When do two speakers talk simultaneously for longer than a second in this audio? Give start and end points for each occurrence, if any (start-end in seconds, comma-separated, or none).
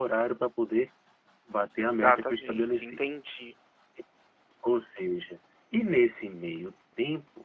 1.8-3.0